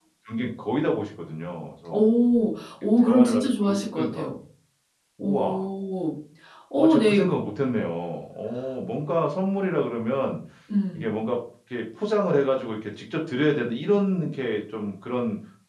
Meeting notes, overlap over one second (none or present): present